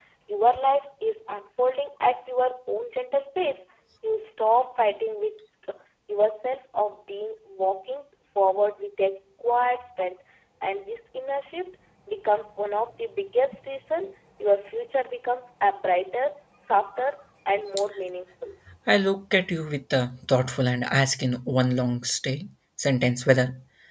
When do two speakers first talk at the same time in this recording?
none

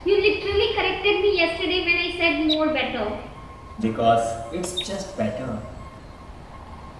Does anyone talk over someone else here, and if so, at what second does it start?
none

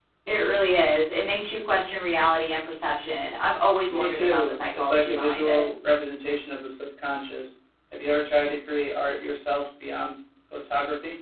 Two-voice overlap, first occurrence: 3.9 s

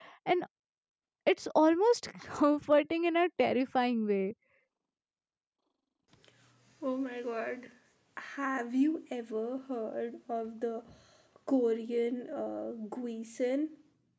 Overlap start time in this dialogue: none

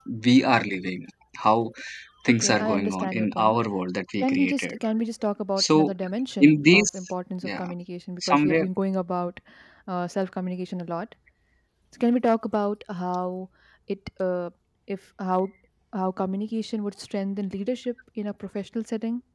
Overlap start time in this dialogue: 2.4 s

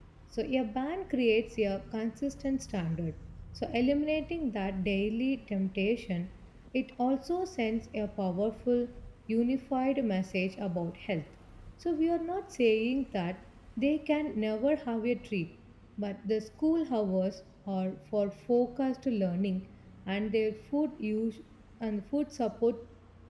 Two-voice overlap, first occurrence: none

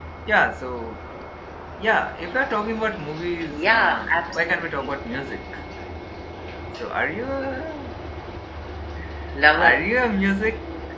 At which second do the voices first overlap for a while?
3.5 s

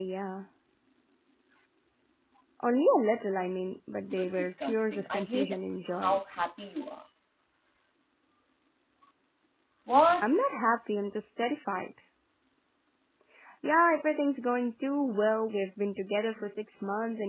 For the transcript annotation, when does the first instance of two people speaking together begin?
4.1 s

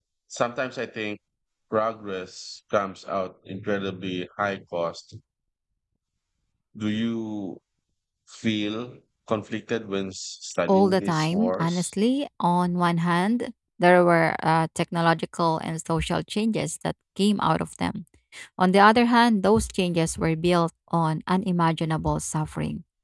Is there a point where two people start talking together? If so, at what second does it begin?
10.7 s

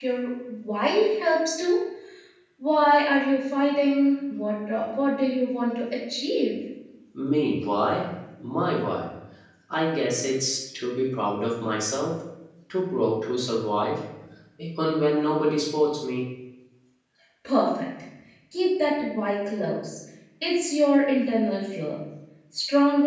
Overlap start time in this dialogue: none

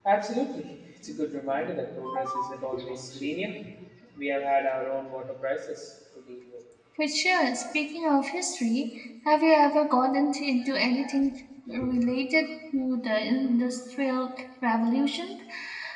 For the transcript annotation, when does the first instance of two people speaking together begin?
none

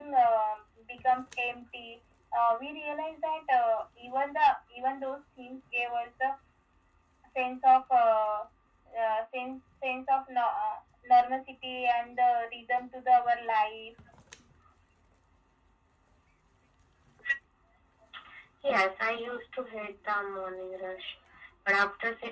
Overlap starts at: none

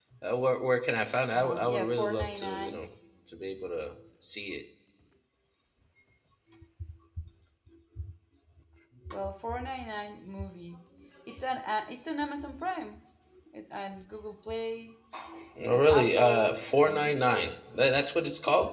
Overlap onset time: 1.3 s

